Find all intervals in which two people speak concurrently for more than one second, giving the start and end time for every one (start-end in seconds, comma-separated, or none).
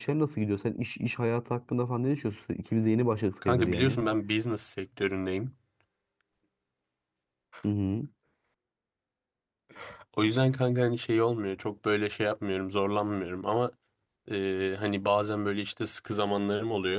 none